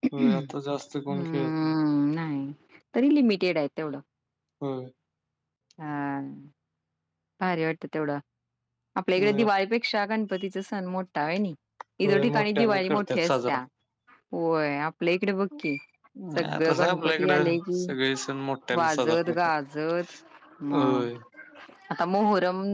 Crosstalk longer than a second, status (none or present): present